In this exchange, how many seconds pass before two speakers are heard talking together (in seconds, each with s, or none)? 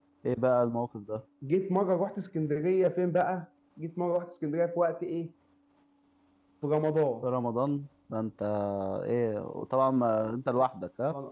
none